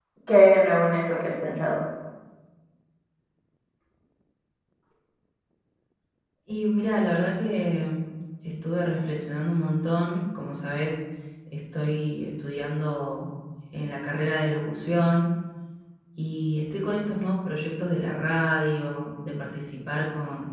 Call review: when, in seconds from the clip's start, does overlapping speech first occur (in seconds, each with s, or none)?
none